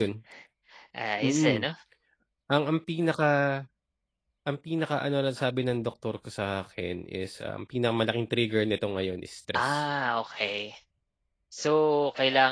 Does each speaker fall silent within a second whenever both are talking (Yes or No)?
Yes